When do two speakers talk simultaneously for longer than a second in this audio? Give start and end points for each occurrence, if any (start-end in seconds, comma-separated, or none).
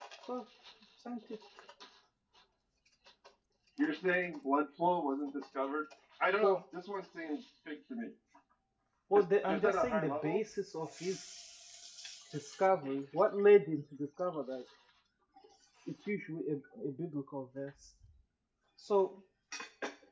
9.1-10.4